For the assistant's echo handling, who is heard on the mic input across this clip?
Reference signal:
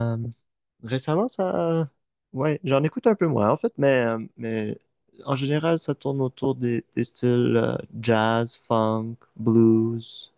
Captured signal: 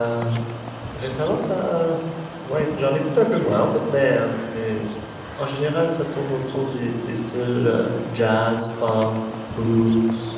echo only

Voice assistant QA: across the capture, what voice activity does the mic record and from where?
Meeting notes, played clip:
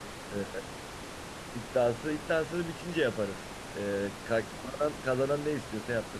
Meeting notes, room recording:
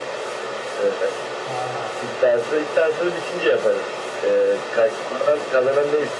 both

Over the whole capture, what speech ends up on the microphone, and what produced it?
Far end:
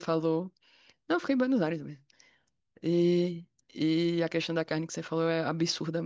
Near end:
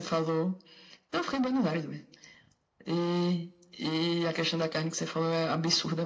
echo only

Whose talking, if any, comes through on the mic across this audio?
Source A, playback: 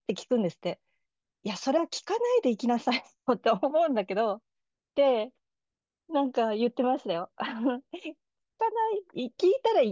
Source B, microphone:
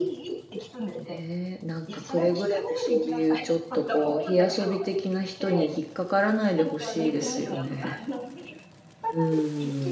both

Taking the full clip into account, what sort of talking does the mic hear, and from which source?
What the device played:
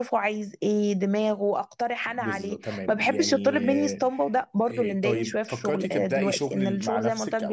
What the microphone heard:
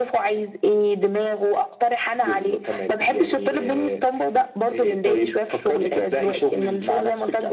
echo only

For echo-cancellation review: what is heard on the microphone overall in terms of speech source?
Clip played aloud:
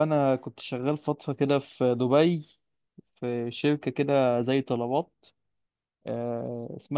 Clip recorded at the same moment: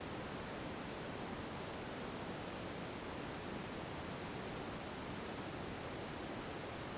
neither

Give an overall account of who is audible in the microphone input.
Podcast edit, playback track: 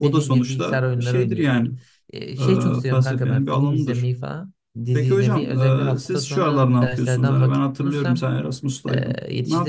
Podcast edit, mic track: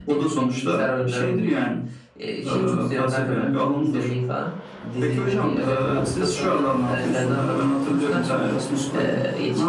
echo only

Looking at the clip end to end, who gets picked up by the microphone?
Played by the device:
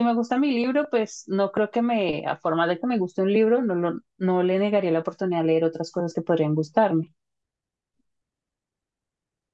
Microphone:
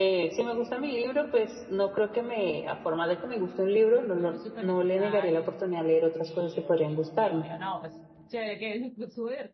both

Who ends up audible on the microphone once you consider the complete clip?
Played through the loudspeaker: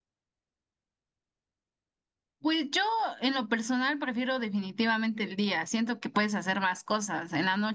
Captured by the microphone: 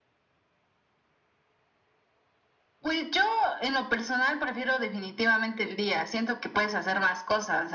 echo only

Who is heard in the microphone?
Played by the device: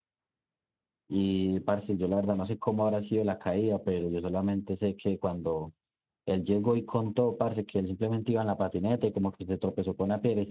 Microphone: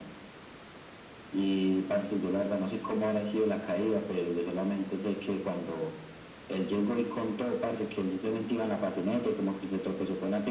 echo only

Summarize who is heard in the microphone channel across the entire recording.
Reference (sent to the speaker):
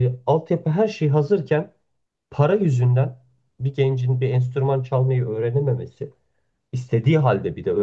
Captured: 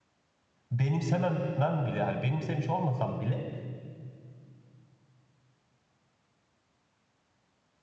user only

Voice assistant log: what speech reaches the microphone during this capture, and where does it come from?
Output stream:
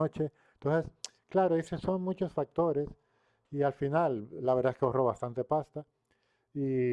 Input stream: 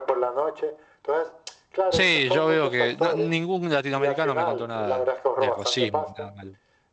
both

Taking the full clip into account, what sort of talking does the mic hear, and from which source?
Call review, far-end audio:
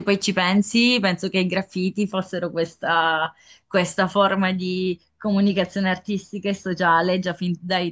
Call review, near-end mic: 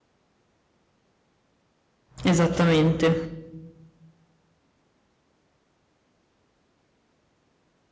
user only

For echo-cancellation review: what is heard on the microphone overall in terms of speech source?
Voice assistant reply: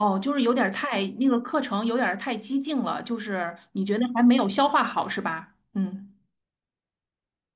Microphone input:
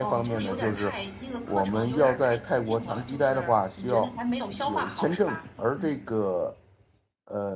both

